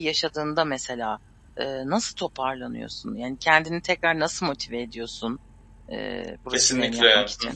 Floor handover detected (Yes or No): Yes